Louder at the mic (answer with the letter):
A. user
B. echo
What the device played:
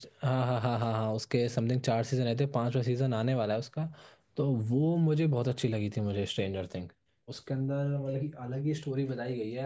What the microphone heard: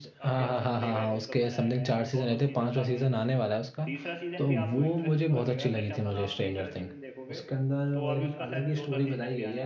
B